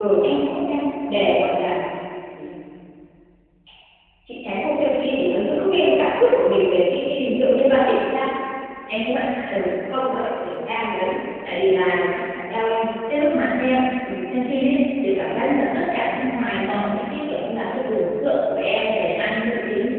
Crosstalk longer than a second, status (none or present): none